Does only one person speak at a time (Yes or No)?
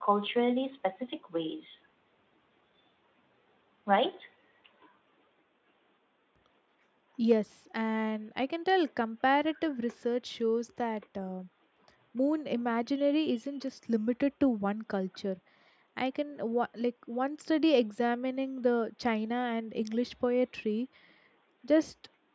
Yes